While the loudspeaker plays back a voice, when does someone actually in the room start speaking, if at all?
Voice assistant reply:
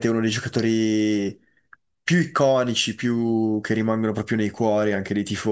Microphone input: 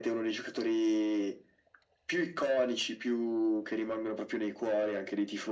none

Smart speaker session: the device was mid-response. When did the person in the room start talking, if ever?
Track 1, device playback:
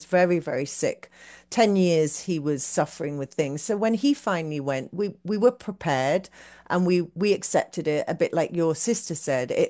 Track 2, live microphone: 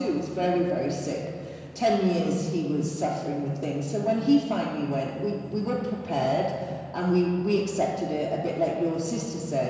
none

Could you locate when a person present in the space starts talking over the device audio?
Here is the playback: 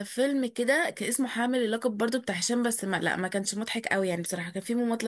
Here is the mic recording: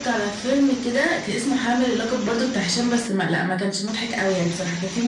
none

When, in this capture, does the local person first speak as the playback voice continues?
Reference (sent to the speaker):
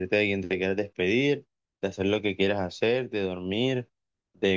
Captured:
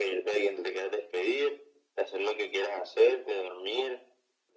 none

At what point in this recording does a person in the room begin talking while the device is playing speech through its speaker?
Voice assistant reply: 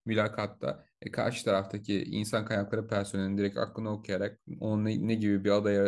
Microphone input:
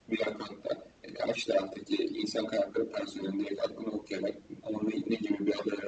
none

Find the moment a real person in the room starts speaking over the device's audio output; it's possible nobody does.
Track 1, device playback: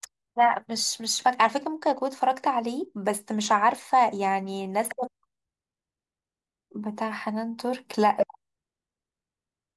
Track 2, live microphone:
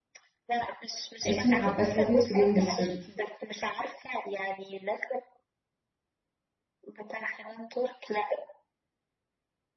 1 s

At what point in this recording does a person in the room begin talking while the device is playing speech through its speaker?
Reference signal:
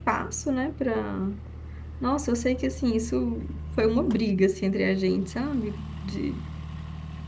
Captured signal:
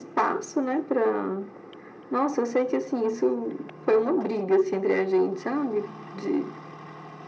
none

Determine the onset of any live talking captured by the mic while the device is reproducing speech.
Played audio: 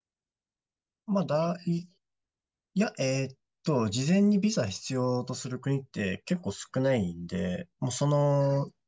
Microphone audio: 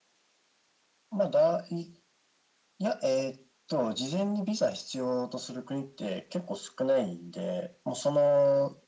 none

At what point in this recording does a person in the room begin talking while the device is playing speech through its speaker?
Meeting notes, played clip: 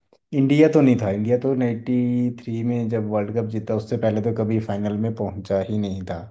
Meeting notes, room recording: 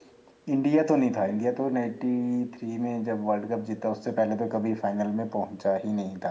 none

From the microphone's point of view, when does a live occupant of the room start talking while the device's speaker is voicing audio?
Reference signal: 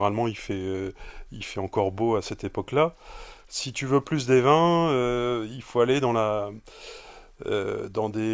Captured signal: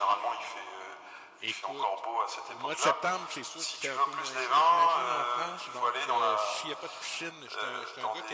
1 s

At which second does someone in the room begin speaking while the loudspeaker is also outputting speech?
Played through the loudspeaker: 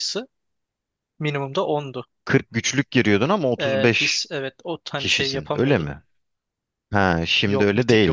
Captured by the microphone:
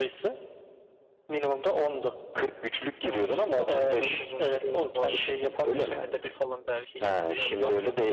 3 s

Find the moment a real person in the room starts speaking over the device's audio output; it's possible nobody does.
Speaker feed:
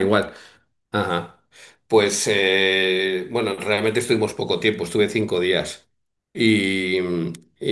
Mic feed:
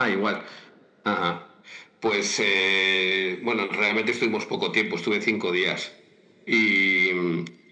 none

